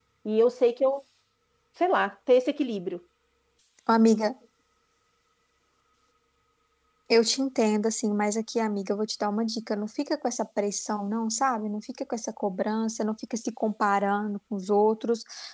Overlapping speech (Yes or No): No